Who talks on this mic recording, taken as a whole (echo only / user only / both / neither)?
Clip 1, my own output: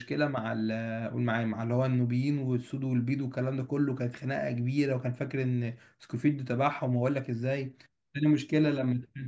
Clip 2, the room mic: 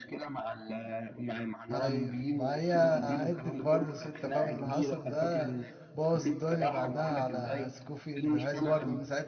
both